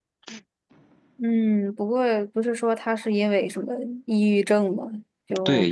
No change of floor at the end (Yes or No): No